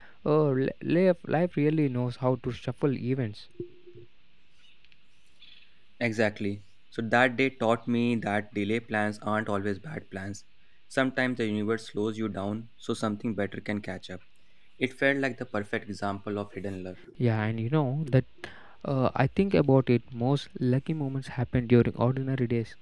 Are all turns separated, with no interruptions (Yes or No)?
Yes